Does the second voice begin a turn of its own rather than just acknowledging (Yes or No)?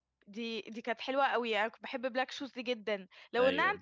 No